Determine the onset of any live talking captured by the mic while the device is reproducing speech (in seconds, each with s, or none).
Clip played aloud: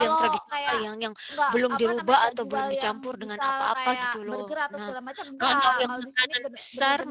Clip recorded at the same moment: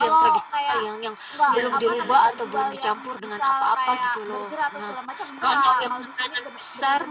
1.5 s